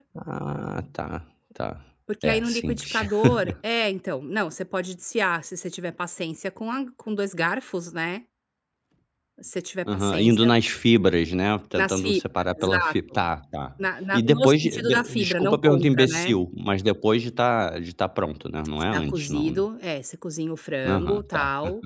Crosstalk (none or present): present